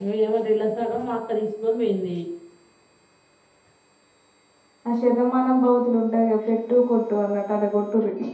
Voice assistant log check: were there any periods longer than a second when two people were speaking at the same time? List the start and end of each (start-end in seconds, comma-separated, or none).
none